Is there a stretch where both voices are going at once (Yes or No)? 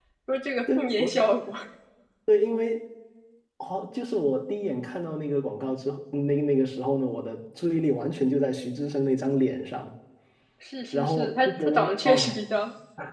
Yes